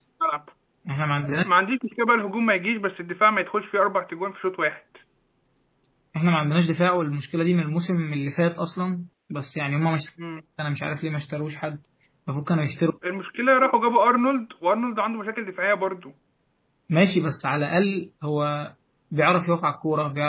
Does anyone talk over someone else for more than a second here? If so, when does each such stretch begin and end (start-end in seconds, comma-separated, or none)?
none